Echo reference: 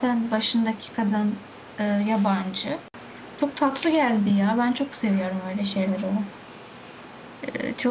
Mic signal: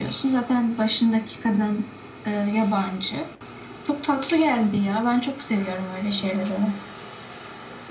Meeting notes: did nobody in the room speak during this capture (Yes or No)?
Yes